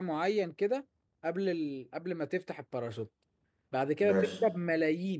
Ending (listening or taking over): listening